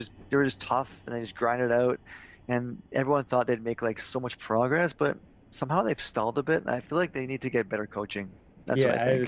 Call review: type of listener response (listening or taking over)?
taking over